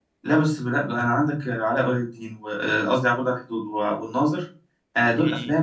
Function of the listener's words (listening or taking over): listening